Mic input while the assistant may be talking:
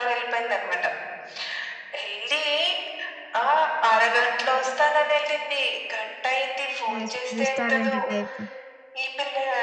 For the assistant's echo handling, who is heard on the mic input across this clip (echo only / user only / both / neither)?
both